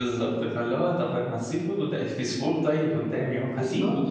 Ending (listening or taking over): taking over